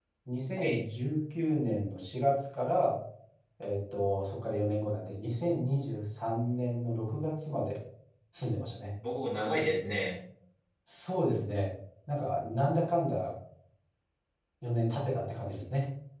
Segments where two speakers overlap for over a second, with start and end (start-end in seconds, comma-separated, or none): none